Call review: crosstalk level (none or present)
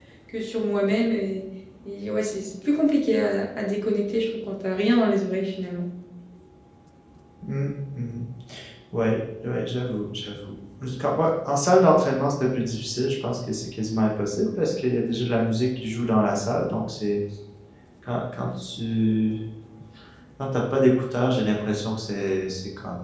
none